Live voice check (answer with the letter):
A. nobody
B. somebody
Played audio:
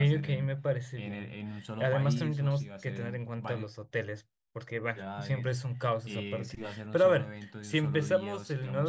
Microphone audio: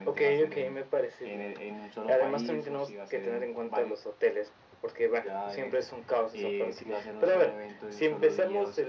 A